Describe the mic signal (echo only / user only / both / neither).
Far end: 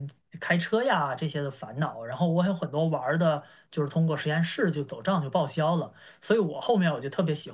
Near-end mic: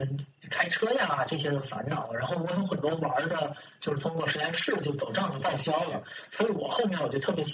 both